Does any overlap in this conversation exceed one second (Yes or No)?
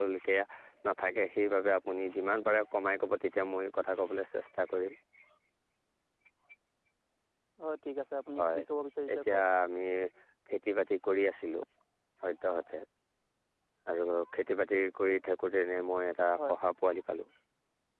No